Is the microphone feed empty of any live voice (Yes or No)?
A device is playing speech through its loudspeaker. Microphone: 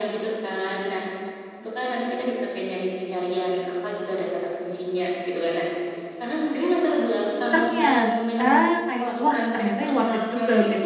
No